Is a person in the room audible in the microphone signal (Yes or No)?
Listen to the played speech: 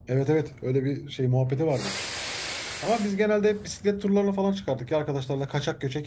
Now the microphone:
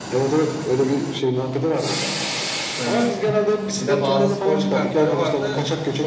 Yes